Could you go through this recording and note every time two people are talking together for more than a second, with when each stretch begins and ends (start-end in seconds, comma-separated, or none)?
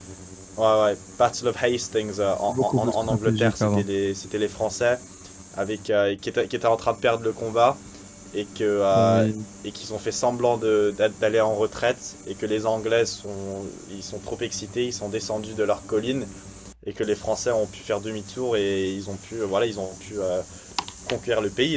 2.5-3.8